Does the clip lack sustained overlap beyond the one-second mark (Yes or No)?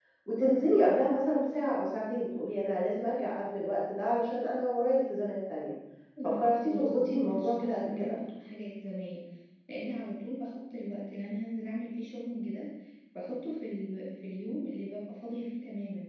No